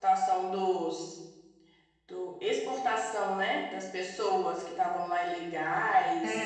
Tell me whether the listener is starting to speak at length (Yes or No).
Yes